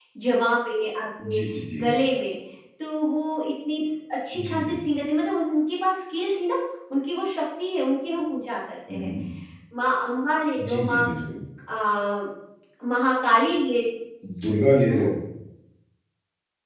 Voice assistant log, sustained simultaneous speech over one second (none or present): none